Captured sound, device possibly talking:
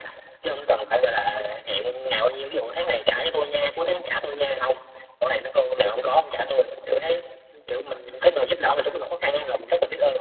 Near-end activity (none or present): none